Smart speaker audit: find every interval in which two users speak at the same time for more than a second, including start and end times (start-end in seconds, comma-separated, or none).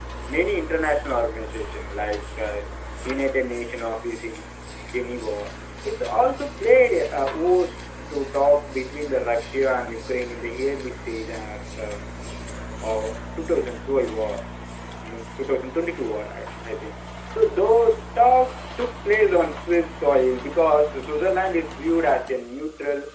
none